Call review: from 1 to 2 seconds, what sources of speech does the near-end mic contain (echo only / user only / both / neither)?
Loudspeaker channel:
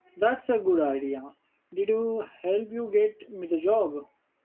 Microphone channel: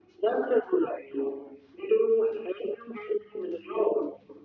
echo only